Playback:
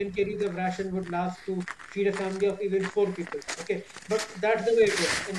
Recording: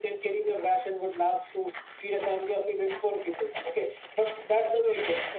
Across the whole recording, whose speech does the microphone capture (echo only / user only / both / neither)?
echo only